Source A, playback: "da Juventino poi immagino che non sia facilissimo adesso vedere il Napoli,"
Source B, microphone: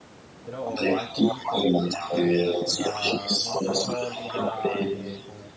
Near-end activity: present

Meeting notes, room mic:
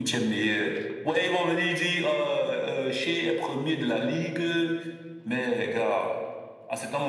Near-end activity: none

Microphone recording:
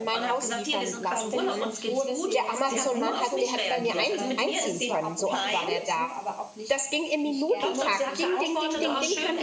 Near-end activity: present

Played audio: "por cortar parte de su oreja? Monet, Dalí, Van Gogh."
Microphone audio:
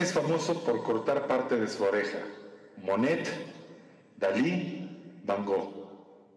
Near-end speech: none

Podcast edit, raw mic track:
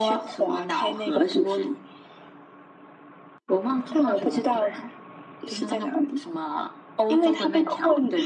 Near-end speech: none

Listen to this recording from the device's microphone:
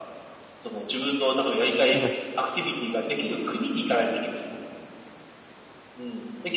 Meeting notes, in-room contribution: present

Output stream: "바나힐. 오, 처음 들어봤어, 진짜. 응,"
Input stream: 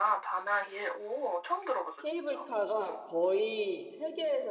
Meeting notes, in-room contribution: present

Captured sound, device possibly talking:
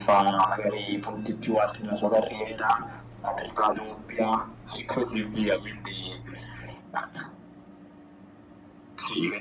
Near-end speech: none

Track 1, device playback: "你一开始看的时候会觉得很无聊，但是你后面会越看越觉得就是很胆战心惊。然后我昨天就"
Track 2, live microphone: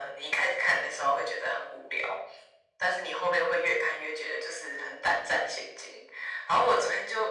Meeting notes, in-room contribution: none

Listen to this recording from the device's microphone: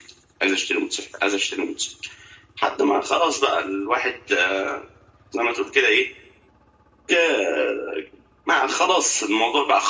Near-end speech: none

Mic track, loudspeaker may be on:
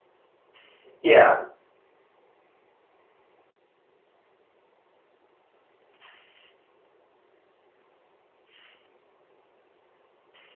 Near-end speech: present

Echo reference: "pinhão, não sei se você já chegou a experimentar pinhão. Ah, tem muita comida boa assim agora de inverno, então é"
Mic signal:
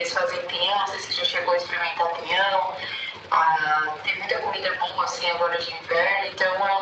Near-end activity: none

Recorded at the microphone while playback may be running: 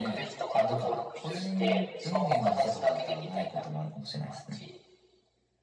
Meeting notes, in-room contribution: present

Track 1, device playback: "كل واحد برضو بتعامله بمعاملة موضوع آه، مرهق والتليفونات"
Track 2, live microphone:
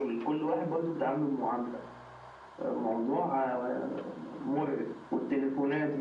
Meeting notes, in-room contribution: none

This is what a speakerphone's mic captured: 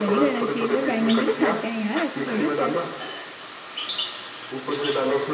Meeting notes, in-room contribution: present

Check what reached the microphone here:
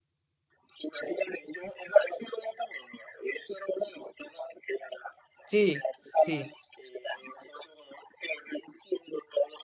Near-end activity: present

